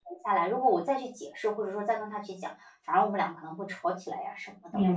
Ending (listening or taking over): taking over